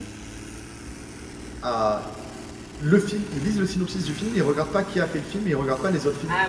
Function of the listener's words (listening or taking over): taking over